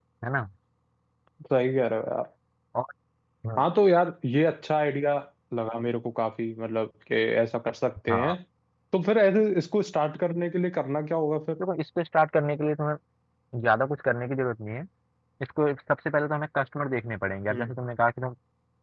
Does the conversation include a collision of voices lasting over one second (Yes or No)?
No